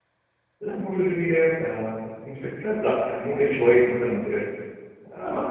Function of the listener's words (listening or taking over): listening